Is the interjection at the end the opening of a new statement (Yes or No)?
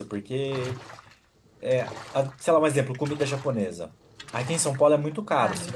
No